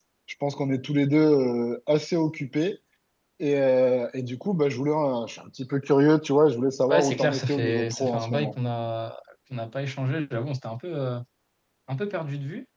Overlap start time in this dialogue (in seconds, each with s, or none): 6.9 s